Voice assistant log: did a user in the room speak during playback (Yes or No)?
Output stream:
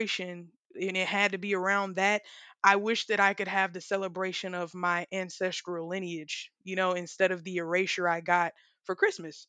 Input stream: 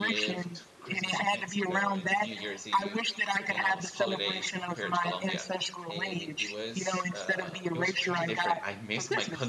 Yes